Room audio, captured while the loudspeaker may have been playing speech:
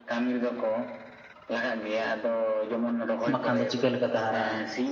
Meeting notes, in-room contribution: present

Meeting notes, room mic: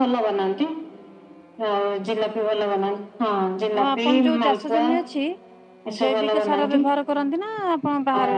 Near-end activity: present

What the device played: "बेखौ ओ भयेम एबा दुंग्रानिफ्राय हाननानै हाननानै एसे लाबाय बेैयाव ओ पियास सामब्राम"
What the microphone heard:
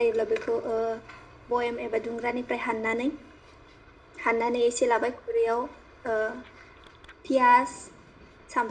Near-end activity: none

